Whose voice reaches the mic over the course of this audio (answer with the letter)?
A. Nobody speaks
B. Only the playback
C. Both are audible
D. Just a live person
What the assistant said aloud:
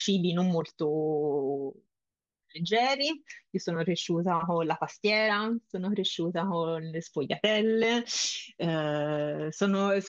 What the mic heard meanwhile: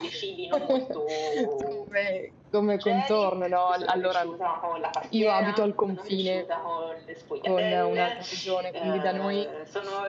C